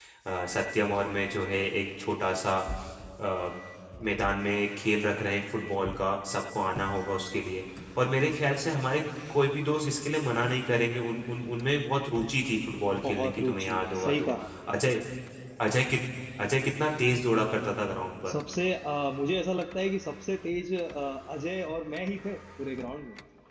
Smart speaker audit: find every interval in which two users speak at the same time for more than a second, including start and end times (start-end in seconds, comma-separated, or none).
13.0-14.3